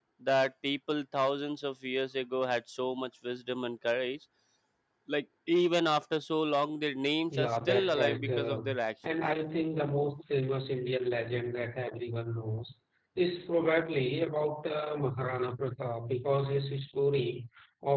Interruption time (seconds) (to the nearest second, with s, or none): 7 s